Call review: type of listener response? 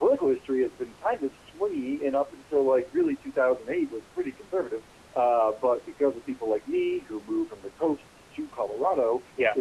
listening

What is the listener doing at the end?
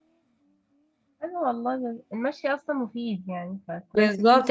taking over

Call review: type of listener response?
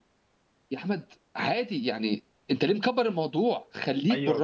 taking over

